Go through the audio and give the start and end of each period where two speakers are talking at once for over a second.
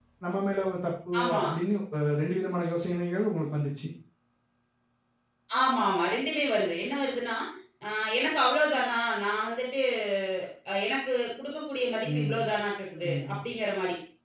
none

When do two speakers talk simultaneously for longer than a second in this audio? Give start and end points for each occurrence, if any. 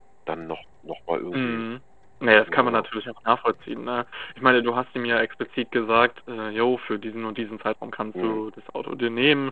none

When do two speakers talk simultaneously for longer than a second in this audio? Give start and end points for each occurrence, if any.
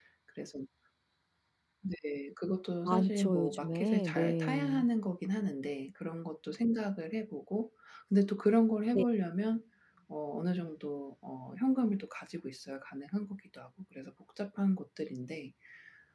2.9-4.8

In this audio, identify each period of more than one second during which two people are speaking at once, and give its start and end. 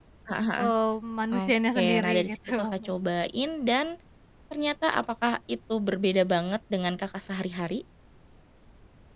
1.3-2.7

